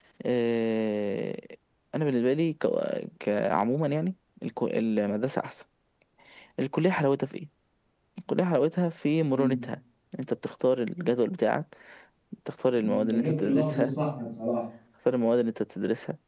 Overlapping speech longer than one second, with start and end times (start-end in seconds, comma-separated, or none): 12.7-13.9